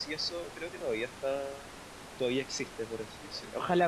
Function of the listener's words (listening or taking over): taking over